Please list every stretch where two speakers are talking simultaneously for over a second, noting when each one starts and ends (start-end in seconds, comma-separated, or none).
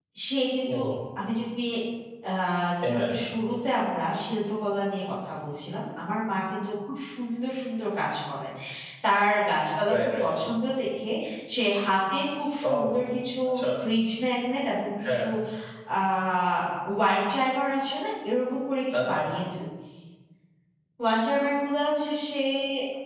none